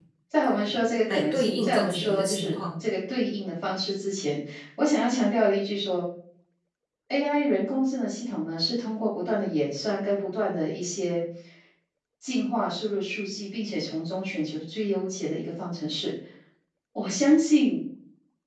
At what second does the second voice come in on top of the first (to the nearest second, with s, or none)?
1 s